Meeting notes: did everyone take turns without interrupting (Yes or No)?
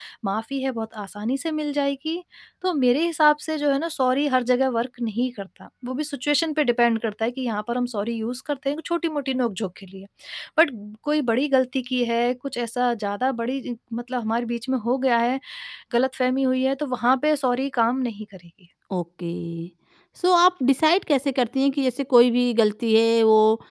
Yes